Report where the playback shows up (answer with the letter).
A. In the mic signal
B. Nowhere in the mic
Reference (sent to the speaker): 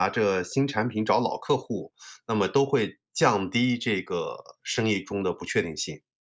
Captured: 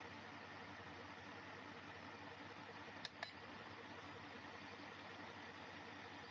B